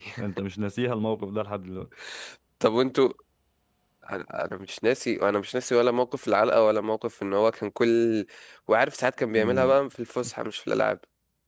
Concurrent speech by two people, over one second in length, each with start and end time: none

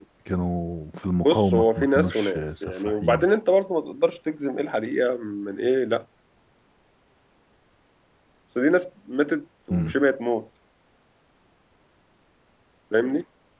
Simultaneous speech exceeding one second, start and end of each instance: 1.2-3.2

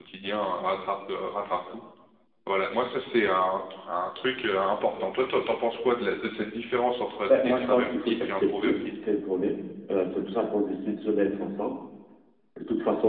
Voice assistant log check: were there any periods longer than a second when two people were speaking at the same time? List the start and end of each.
7.3-8.7

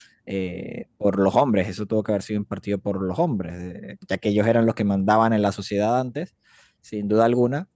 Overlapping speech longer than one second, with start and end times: none

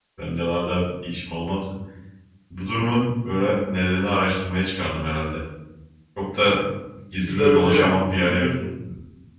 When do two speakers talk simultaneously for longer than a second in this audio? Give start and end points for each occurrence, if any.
7.2-8.5

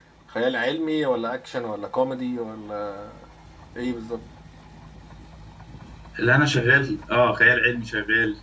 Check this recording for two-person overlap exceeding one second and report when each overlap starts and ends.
none

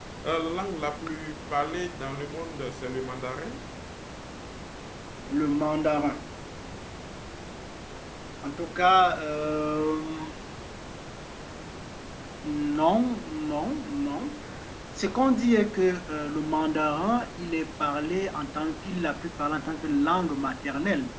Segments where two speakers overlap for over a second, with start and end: none

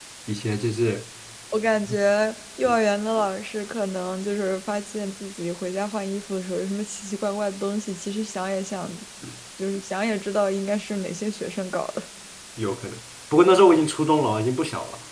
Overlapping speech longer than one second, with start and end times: none

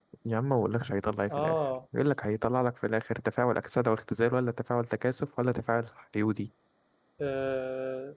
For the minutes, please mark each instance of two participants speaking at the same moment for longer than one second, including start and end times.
none

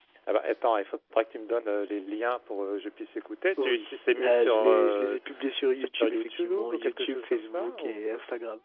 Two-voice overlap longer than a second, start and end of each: 3.6-5.2, 5.7-8.0

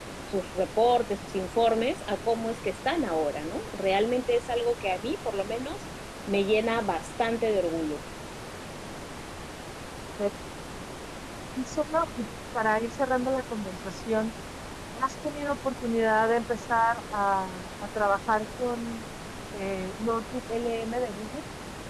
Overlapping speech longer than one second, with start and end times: none

